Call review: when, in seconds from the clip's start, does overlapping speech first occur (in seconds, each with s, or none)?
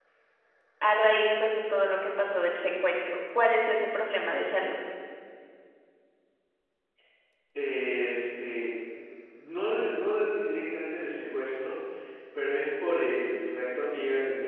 none